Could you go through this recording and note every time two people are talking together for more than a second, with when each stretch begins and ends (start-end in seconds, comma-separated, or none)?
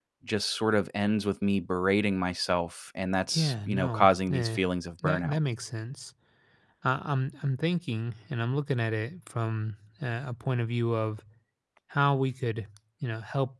3.3-4.6